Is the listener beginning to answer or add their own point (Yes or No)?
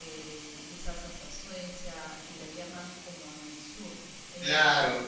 Yes